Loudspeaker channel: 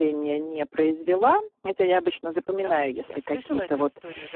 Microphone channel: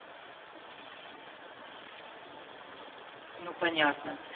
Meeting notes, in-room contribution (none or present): present